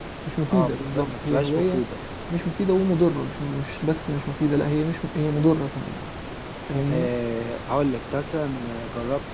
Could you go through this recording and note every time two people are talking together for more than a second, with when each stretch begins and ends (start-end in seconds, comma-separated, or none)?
0.5-1.8